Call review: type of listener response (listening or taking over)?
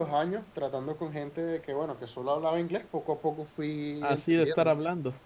taking over